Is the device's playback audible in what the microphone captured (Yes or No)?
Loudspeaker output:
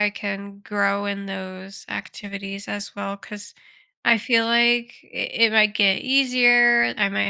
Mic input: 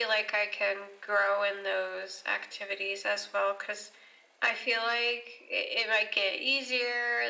Yes